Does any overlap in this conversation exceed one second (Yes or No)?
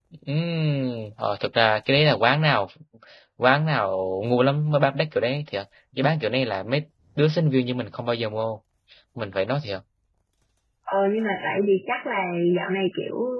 No